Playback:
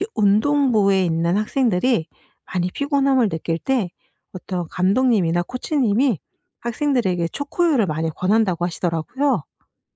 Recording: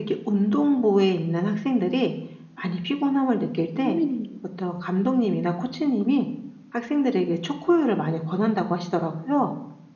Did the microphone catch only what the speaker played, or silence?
No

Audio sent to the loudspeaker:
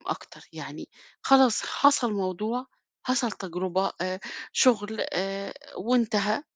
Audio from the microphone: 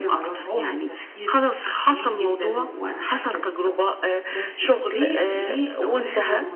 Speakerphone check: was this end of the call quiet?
No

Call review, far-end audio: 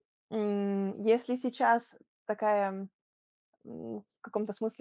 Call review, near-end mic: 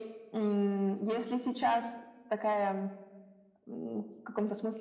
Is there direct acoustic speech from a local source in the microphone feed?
No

